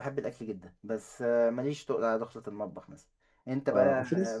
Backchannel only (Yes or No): No